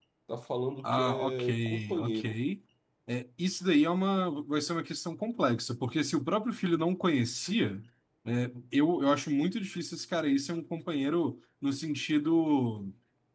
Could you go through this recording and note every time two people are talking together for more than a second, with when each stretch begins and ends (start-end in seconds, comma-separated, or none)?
0.8-2.4